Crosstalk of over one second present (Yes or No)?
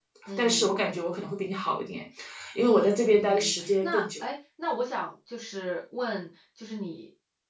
Yes